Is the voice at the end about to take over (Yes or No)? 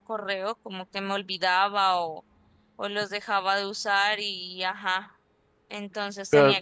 No